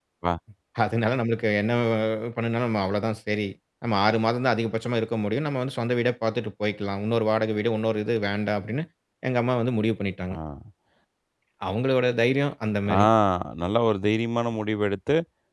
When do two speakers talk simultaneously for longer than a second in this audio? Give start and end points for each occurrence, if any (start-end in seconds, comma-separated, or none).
none